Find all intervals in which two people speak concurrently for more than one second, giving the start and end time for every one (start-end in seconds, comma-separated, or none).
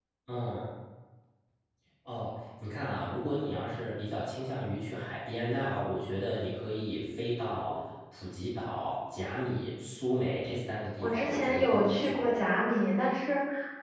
11.0-12.4